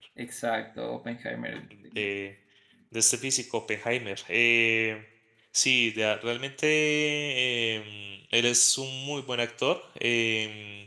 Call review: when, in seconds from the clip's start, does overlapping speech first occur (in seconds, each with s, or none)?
none